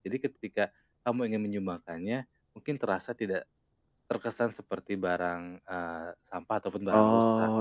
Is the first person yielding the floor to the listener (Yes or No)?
Yes